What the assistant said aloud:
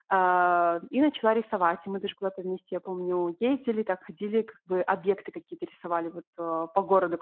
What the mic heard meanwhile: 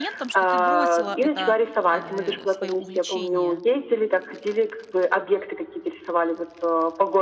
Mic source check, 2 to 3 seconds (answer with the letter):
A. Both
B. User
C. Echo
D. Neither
A